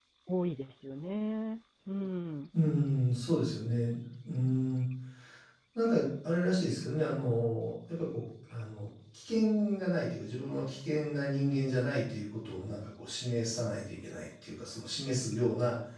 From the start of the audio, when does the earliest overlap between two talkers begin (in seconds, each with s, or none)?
none